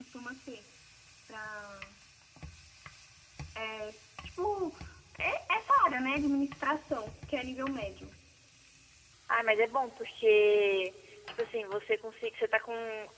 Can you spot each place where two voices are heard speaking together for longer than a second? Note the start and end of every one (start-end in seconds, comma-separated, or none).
none